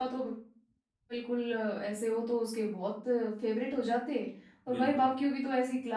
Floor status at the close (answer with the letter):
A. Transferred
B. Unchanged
B